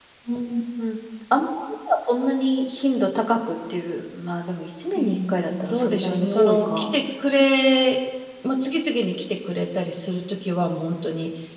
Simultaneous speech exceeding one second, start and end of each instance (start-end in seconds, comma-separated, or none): 5.0-6.9